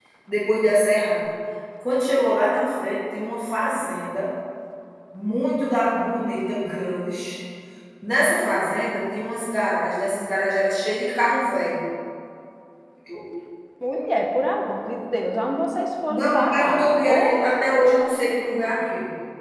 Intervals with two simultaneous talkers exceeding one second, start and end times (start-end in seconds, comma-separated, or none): 16.1-17.4